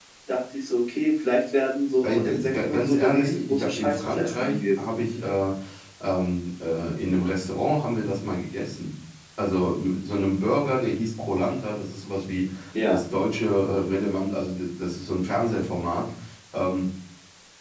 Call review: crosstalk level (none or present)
present